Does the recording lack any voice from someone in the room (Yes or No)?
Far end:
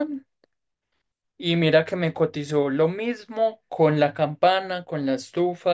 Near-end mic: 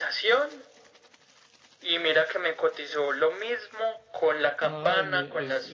No